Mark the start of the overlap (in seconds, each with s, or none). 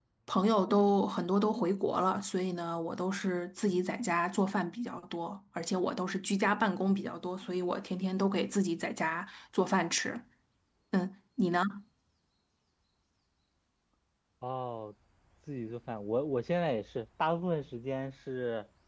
none